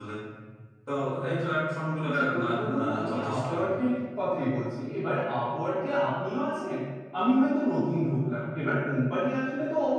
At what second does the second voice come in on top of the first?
2.0 s

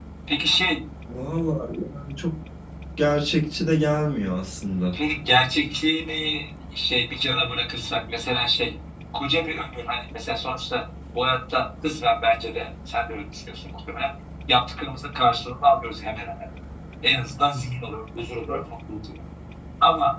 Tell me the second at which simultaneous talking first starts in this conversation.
none

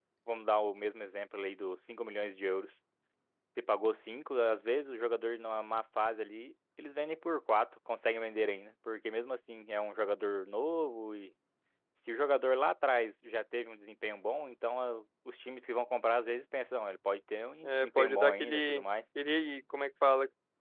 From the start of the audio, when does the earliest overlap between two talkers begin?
17.6 s

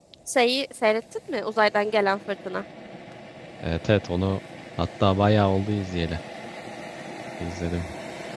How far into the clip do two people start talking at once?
none

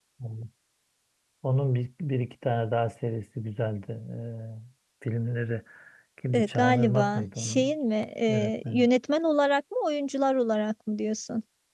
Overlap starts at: 6.3 s

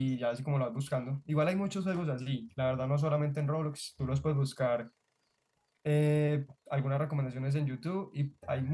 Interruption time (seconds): none

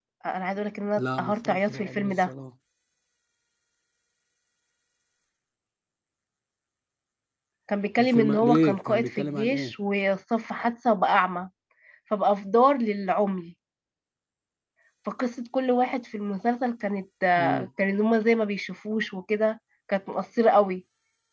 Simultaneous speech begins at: 1.0 s

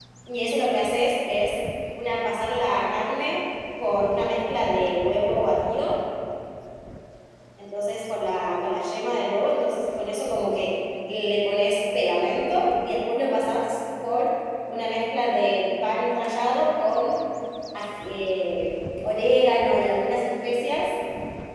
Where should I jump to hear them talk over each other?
none

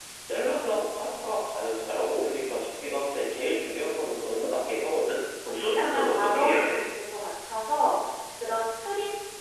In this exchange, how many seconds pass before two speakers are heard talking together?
5.4 s

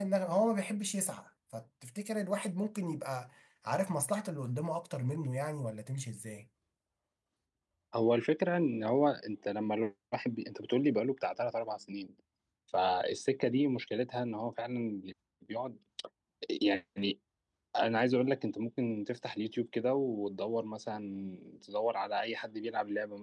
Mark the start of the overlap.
none

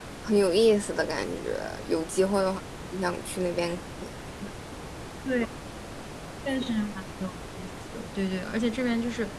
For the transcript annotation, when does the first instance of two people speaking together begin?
none

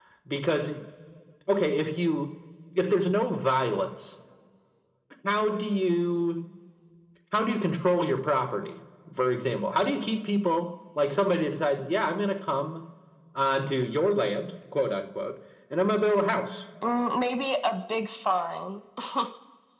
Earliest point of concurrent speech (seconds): none

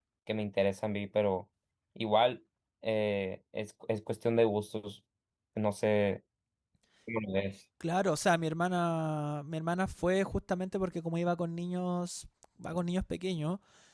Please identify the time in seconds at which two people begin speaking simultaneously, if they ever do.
none

